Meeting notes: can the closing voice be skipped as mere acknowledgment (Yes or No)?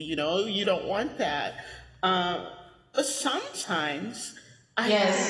Yes